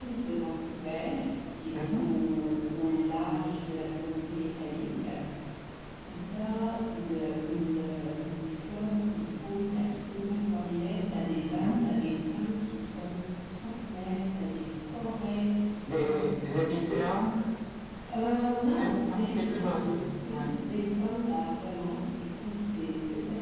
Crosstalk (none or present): present